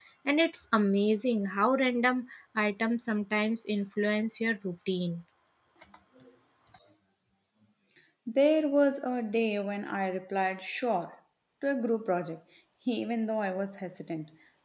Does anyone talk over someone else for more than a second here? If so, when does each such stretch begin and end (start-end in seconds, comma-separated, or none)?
none